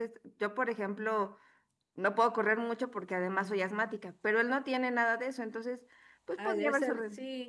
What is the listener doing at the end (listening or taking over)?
taking over